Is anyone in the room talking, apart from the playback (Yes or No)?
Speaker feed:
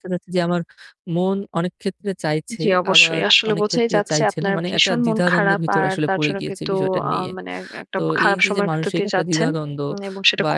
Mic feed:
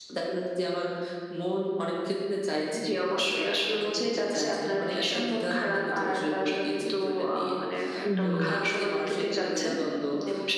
Yes